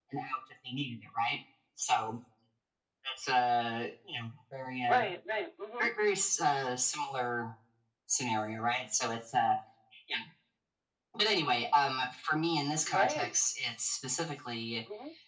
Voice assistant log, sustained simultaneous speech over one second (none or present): none